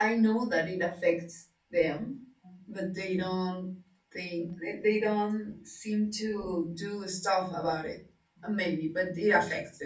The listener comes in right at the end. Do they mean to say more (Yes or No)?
No